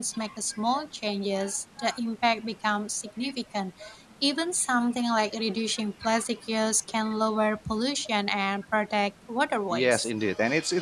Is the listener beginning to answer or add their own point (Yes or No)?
Yes